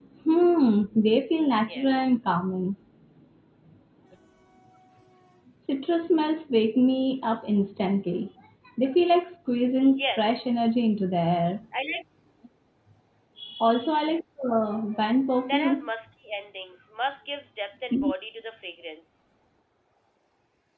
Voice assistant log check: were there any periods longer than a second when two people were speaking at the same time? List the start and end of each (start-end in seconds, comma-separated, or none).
none